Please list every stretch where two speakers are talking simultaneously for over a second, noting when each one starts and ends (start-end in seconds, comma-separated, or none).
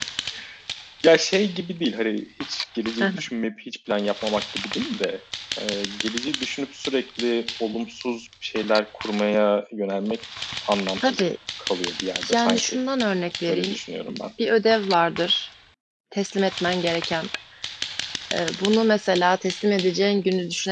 none